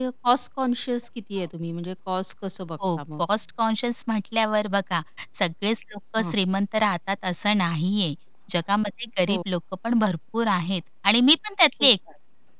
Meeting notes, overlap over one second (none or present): none